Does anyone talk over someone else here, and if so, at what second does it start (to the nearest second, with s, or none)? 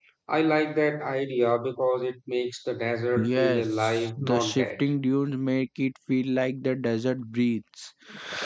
3 s